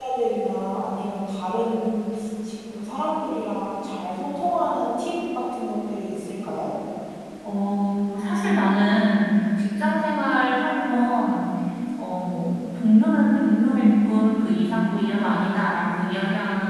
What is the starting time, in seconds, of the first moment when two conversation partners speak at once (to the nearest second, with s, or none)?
none